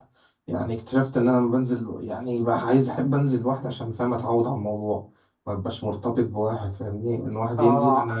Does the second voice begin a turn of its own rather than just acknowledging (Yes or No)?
Yes